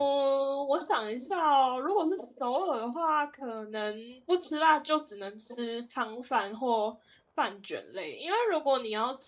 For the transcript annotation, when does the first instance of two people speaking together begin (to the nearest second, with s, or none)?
none